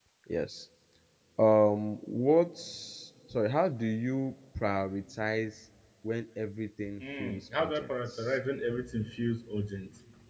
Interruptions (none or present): present